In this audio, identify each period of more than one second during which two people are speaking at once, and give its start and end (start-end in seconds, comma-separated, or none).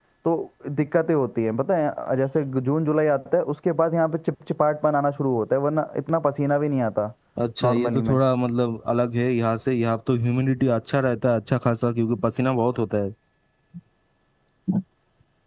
none